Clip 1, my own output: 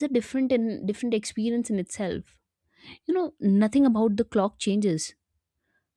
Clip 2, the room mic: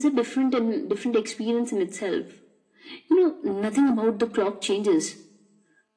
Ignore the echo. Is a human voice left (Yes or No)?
No